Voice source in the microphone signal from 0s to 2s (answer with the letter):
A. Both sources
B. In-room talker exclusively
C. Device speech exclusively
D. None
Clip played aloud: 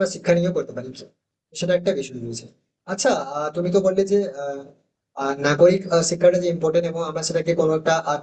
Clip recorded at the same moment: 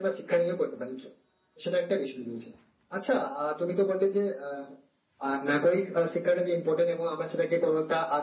C